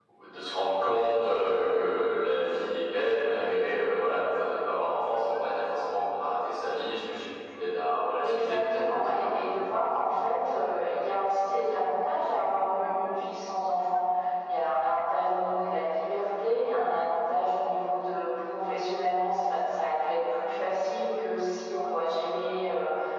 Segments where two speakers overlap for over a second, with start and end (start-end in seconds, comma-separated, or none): 8.2-9.6